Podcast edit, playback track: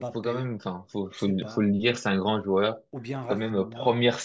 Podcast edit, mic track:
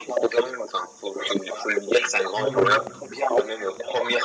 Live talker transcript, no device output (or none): dans la Ligue.